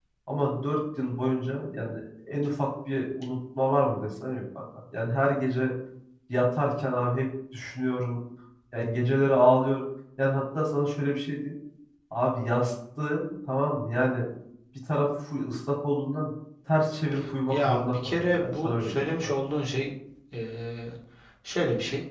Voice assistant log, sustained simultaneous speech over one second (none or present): present